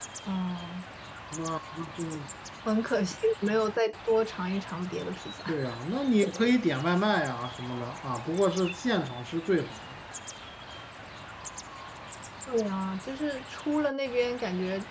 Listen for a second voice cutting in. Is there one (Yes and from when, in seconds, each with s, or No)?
No